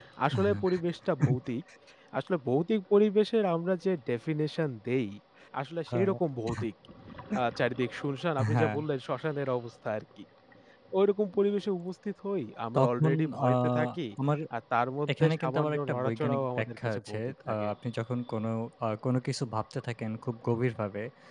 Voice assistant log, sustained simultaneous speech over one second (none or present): present